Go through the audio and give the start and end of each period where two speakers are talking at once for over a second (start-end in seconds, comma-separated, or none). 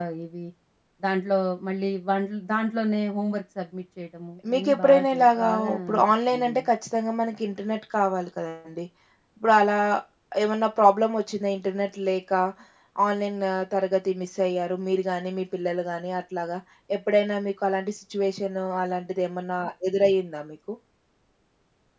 4.5-6.7